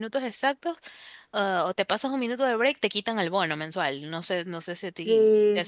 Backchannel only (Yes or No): No